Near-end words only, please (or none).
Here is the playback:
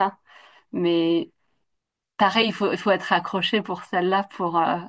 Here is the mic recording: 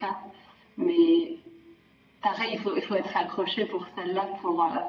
none